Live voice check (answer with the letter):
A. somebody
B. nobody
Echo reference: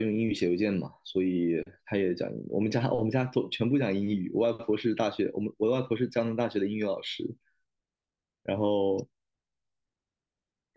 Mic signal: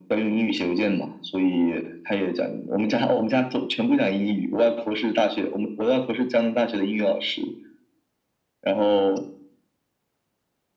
B